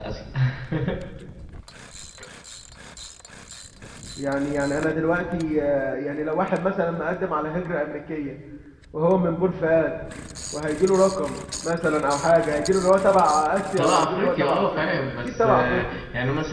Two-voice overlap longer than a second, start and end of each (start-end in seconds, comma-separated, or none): 13.8-16.0